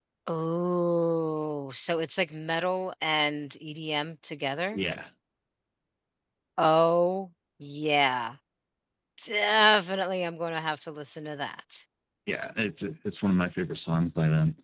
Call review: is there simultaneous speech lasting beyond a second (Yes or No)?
No